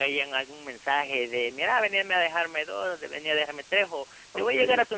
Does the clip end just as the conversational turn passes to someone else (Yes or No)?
No